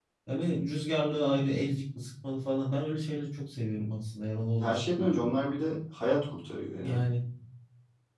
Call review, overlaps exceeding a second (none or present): none